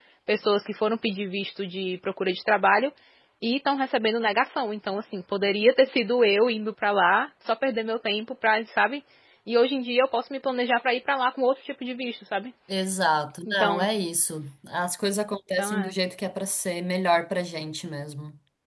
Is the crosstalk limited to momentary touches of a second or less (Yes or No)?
Yes